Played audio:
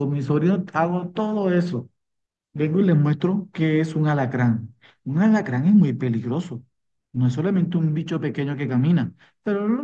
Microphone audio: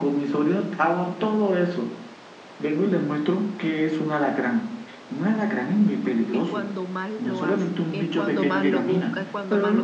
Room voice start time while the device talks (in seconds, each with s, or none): 6.3 s